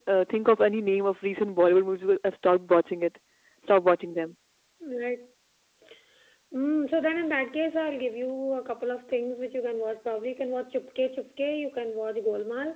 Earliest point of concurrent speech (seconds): none

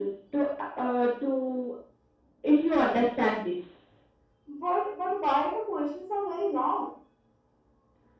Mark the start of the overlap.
none

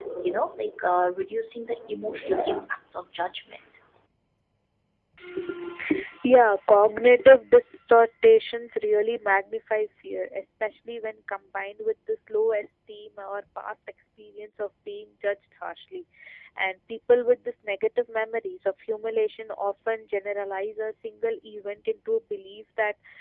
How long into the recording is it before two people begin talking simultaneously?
none

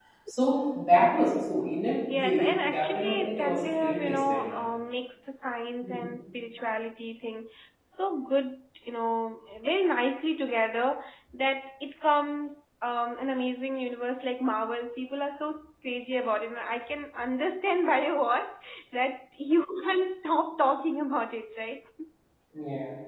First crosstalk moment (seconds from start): 2.1 s

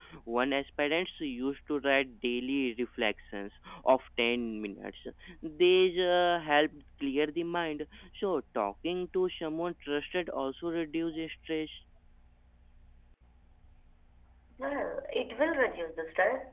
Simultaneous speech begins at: none

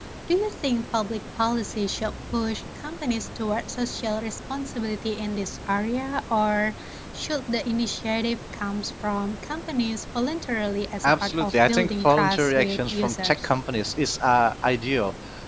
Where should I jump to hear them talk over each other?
11.0 s

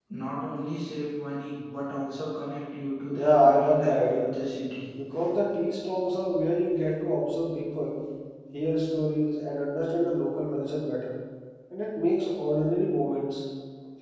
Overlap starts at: 3.1 s

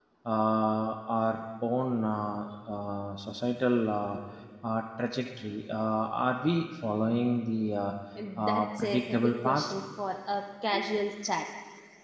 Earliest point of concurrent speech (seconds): 8.4 s

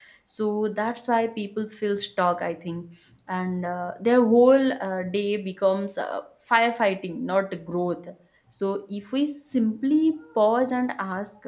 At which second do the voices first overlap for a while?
none

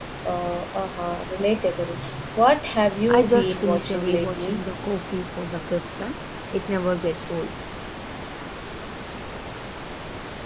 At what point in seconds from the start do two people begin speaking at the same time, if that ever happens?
3.1 s

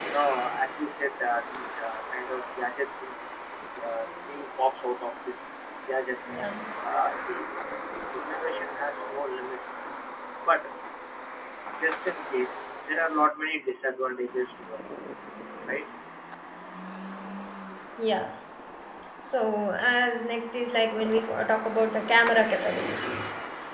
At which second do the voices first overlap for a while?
none

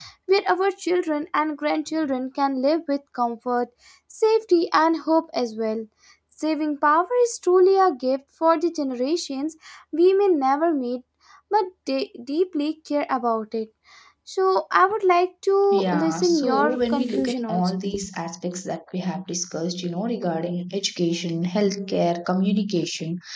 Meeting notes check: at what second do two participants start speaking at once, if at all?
15.7 s

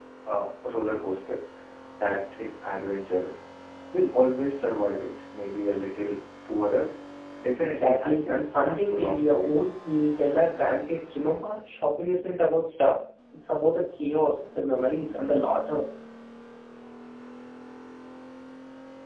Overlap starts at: 7.6 s

